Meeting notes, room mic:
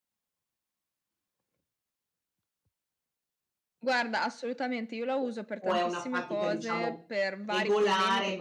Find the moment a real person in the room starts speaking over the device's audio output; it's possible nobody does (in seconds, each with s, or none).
5.2 s